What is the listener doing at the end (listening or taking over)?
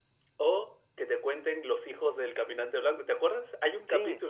listening